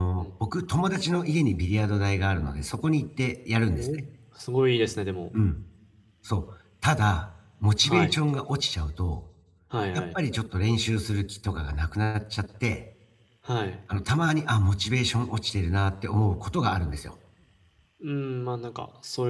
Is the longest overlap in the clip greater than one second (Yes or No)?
No